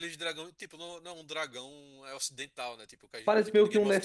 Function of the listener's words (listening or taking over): taking over